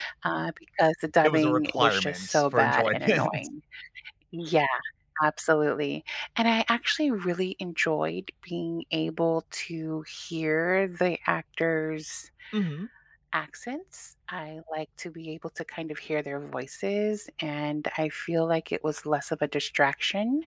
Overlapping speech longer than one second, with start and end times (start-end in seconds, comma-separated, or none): 1.2-3.5